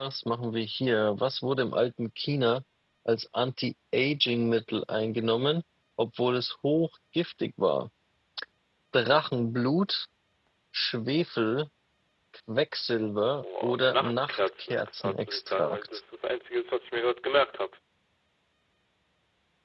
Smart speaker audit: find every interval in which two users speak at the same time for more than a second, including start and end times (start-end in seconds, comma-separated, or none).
13.6-15.9